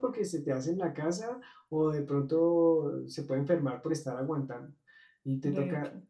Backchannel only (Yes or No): Yes